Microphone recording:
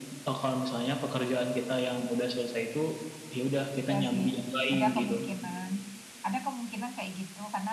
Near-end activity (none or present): present